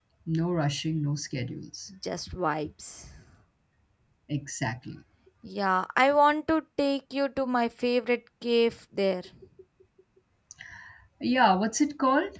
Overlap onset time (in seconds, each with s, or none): none